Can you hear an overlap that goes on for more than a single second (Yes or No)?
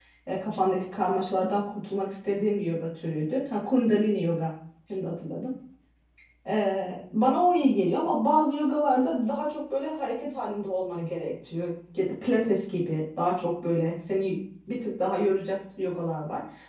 No